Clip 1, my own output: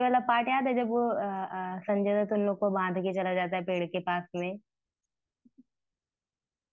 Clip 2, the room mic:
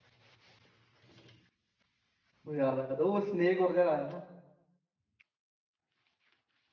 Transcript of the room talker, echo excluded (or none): मुझे याद आ गया था वो स्नेक वगैरह आया ना